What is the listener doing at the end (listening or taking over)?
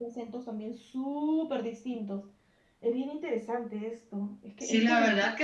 taking over